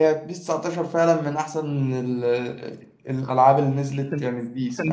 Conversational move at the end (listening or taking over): taking over